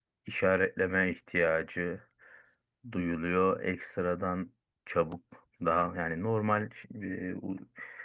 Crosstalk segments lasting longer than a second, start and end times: none

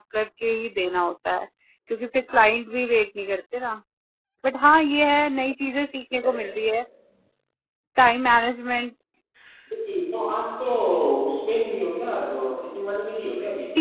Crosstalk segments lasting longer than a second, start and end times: none

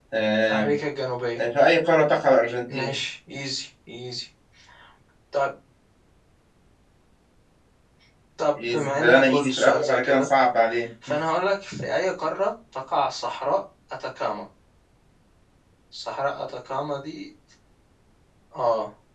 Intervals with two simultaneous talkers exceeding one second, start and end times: 8.6-10.3

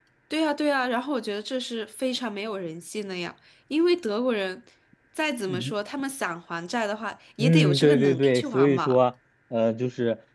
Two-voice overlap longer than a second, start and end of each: 7.4-9.0

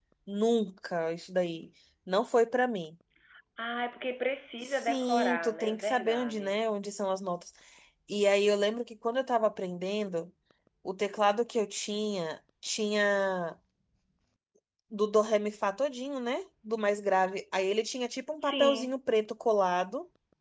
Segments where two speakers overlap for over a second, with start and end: 4.6-6.5

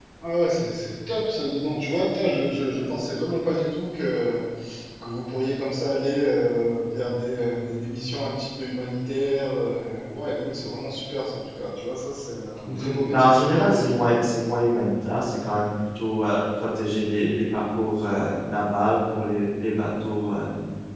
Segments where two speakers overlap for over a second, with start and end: 12.7-14.2

